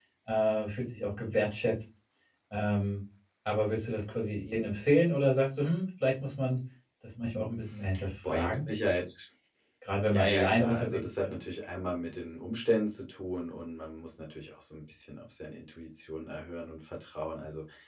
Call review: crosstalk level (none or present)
present